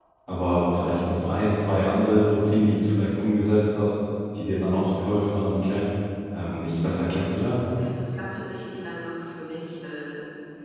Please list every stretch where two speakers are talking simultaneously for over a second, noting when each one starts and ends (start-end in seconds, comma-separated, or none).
none